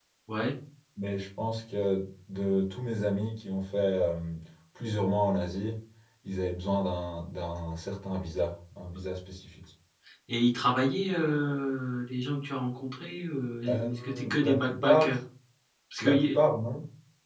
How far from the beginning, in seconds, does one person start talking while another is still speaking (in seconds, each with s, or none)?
13.7 s